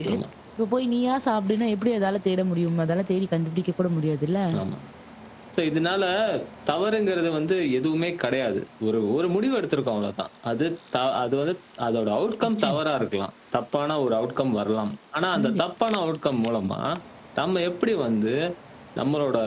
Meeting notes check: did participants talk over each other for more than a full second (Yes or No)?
No